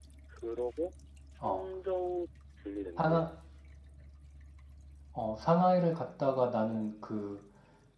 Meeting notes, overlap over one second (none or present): none